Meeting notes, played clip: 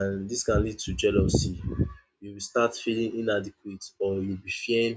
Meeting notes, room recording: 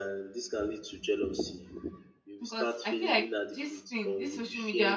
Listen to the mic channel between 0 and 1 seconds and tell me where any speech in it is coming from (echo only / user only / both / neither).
echo only